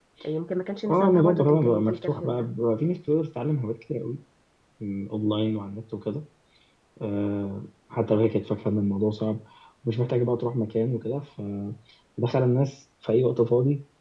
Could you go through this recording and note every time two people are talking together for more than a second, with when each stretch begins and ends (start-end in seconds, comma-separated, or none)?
0.9-2.5